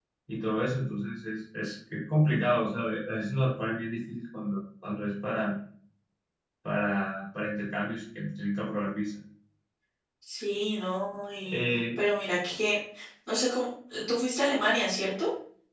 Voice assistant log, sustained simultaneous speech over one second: none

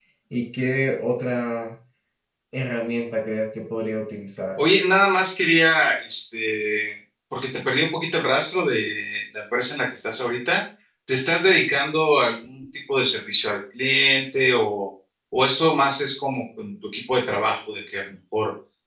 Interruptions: none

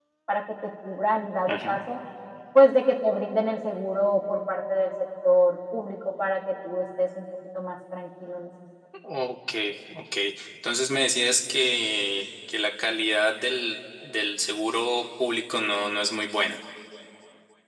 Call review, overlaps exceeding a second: none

